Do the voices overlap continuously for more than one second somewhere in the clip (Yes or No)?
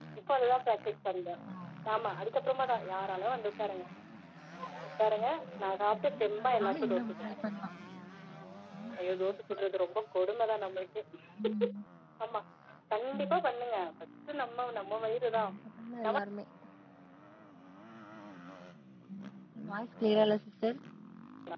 Yes